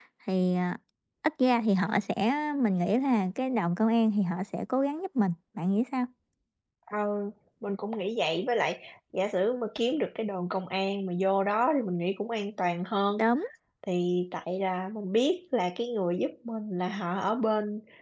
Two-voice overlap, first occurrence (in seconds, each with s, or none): none